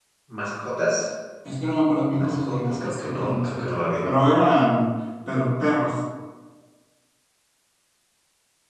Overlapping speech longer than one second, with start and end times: 2.1-4.0

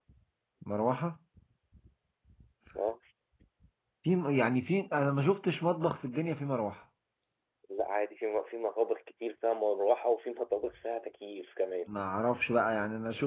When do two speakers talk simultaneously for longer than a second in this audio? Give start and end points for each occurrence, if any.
none

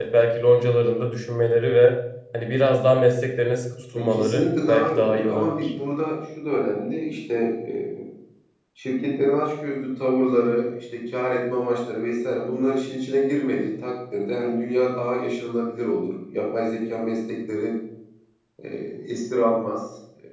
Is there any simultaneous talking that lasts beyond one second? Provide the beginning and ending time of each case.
3.9-5.7

